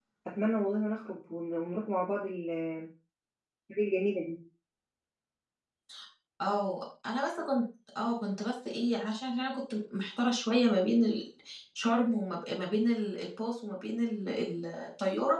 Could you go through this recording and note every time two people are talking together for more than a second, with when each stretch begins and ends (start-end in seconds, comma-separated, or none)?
none